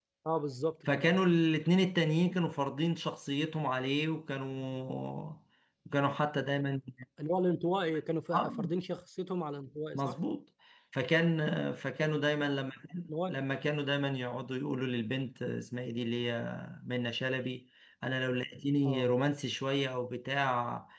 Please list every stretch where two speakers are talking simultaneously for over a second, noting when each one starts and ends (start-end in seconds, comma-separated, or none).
none